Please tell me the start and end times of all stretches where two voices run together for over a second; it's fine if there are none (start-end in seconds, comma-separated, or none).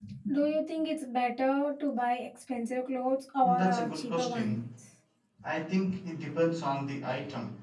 3.4-4.6